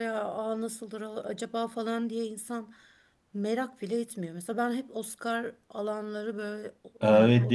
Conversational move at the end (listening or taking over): taking over